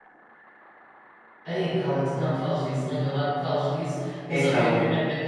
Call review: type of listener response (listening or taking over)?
listening